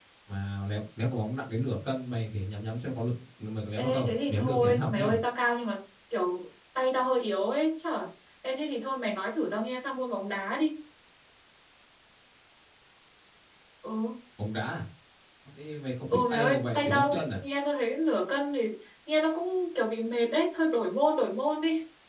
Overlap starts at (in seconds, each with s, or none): 3.8 s